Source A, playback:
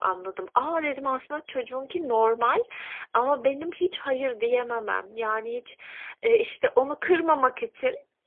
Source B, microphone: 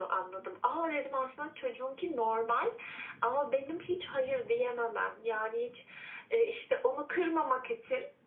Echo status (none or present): present